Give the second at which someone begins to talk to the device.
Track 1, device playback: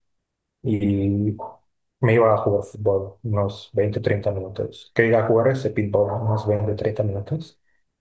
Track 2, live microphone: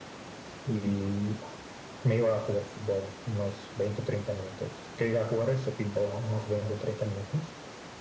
none

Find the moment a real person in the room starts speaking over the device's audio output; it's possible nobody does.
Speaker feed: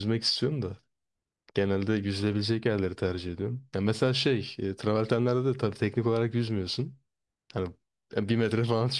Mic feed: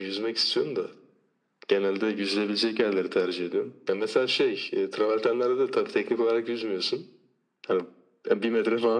none

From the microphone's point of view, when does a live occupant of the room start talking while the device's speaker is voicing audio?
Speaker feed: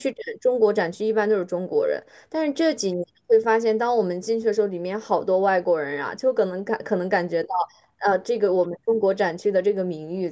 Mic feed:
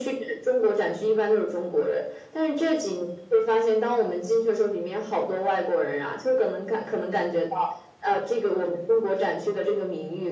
none

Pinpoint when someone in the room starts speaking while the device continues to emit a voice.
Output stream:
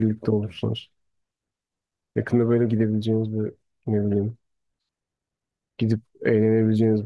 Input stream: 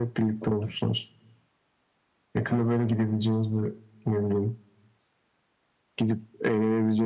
none

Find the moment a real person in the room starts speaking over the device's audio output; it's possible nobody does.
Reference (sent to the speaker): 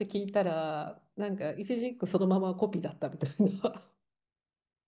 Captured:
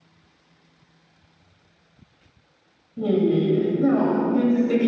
3.0 s

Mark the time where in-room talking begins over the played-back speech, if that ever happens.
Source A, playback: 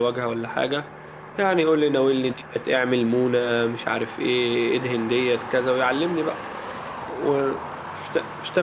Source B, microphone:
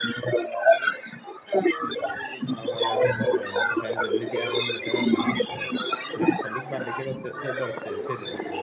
2.5 s

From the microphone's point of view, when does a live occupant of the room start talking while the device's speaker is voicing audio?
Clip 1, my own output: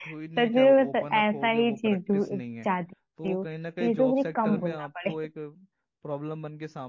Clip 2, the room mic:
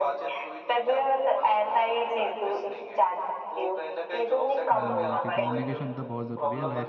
4.7 s

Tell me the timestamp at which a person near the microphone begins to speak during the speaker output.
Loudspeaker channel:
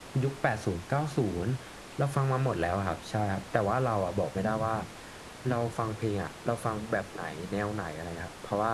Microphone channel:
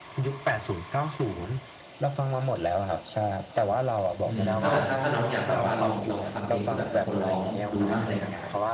4.0 s

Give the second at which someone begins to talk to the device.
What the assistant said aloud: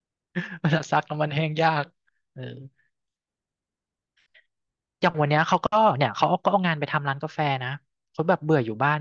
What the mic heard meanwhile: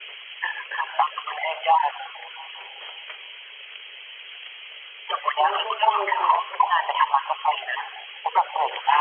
5.3 s

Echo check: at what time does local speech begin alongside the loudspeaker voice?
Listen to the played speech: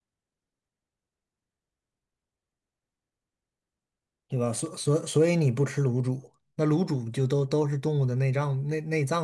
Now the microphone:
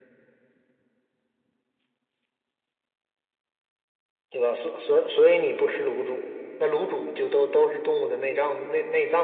none

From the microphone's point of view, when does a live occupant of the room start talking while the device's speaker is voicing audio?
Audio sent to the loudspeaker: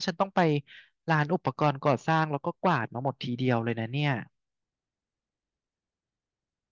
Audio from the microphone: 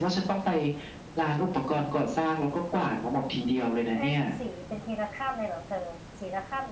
3.9 s

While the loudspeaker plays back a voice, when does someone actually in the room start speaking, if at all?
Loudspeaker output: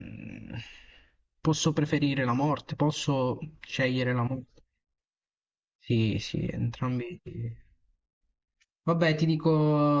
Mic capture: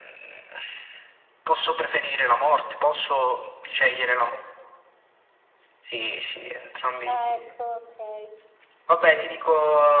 7.0 s

